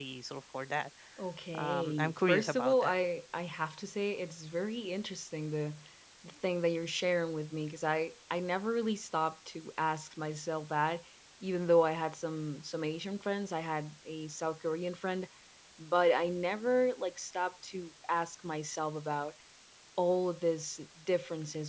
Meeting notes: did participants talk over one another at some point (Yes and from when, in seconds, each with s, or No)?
Yes, from 1.5 s